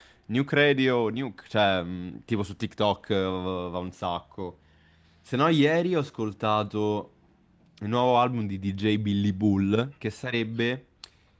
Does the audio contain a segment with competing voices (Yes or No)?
No